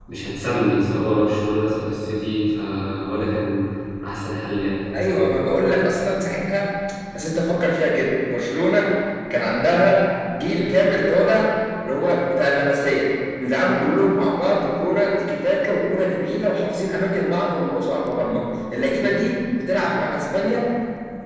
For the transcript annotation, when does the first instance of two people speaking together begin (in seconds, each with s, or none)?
none